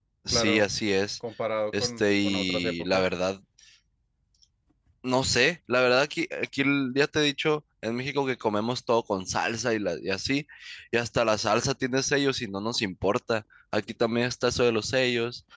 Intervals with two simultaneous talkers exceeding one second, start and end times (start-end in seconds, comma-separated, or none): 1.8-3.0